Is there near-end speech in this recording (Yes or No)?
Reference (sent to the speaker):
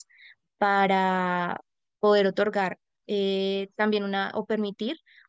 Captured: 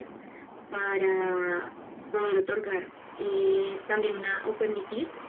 No